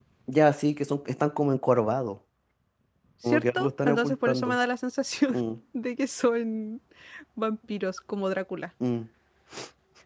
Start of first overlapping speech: 3.2 s

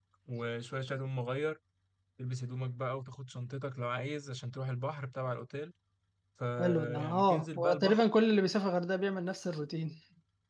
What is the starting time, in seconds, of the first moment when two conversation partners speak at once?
6.6 s

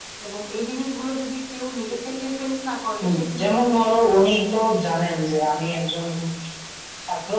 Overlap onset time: 3.0 s

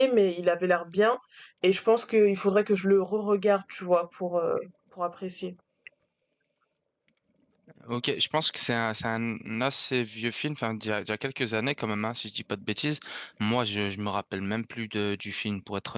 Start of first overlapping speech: none

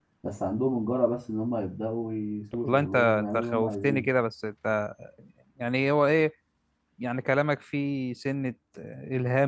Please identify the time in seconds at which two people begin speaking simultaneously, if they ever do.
2.6 s

